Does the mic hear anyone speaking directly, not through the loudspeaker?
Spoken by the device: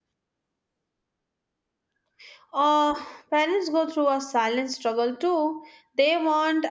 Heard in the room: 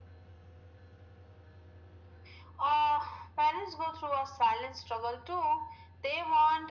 No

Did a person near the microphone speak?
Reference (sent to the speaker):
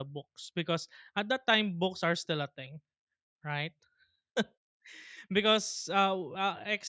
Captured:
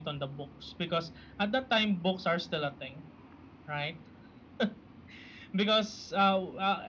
No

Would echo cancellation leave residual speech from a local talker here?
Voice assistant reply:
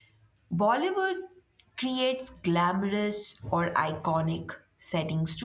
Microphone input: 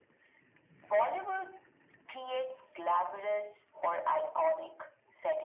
No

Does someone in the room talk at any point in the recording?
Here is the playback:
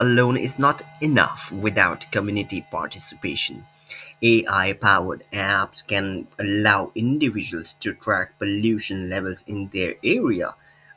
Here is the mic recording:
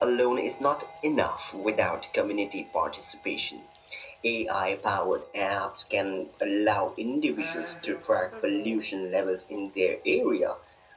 Yes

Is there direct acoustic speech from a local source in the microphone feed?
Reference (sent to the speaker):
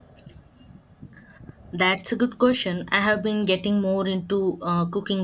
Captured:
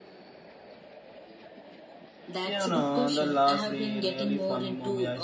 Yes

